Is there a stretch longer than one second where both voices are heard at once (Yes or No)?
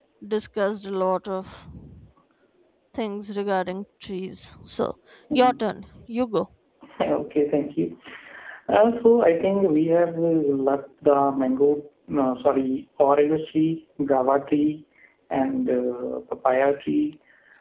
No